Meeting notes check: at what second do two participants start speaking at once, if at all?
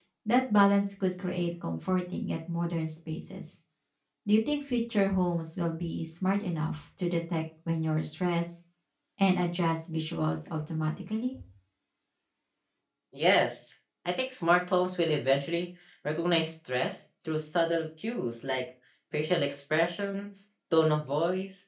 none

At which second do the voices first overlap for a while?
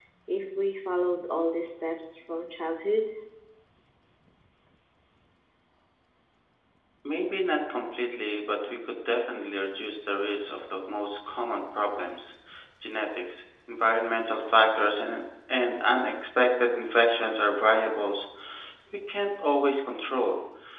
none

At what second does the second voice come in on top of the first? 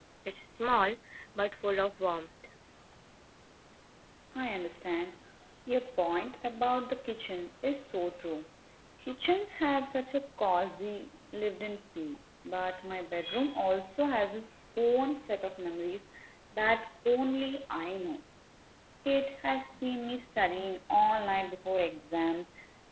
none

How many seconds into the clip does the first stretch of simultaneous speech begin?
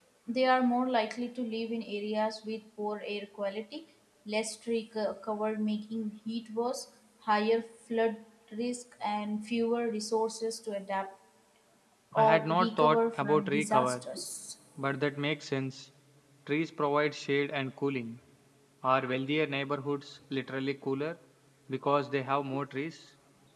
12.1 s

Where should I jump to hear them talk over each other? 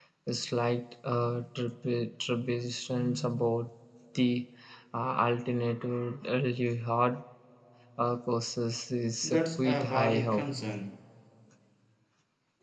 9.2 s

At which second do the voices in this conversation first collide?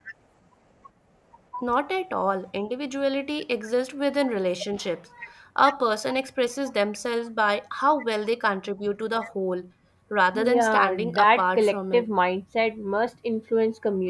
10.3 s

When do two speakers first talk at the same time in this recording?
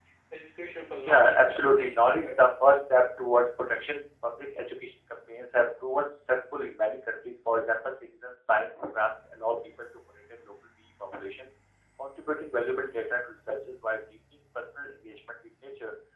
1.0 s

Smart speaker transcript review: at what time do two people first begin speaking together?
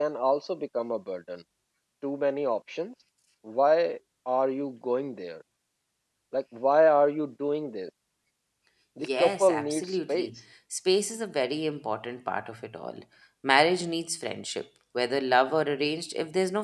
9.0 s

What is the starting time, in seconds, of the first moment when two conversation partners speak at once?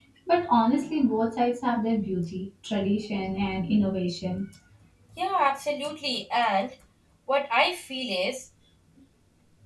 none

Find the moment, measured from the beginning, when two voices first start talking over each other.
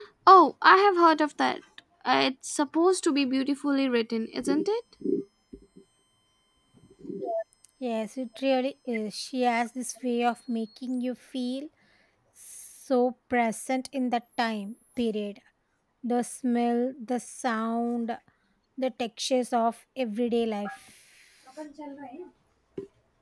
none

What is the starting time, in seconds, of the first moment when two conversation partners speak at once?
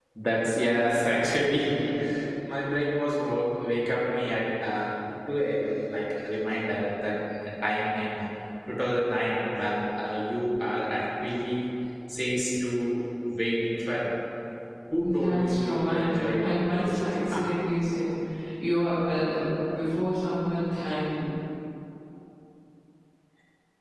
15.0 s

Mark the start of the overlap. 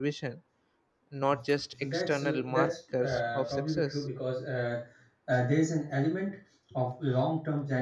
1.8 s

